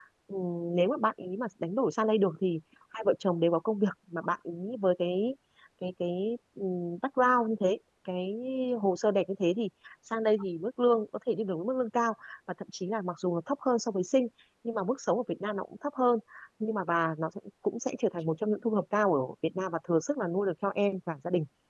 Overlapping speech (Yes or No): No